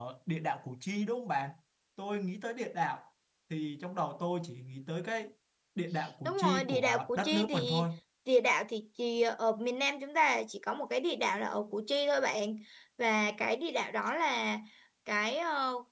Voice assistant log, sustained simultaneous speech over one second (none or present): present